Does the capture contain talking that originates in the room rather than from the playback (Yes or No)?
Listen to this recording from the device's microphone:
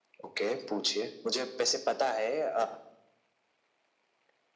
No